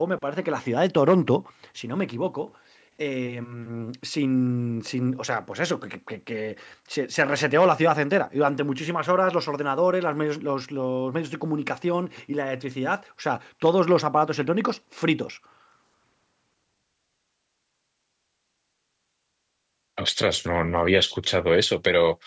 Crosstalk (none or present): none